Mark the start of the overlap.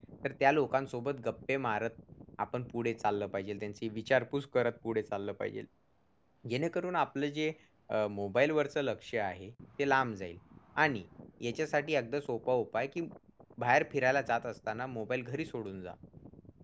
none

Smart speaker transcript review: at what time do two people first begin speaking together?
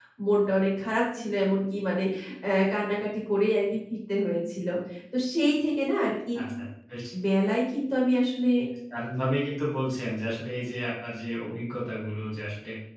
none

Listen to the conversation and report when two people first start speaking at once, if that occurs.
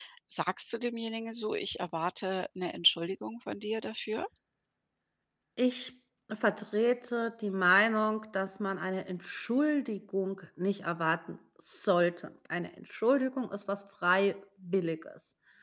none

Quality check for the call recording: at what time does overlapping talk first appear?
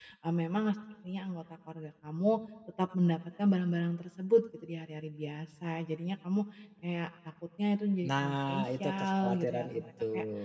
8 s

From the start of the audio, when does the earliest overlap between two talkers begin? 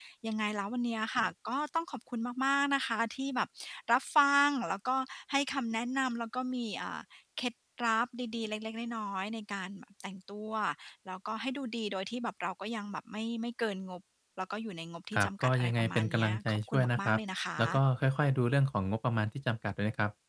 15 s

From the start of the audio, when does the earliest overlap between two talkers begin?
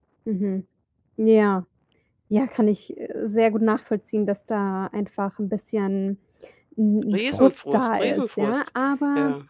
7 s

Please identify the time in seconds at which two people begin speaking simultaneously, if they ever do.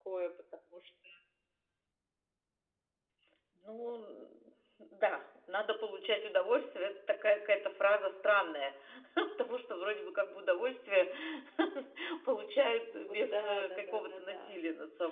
13 s

